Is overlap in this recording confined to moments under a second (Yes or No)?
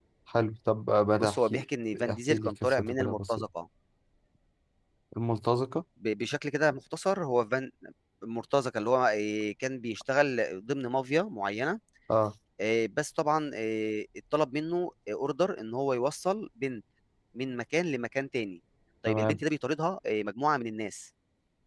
No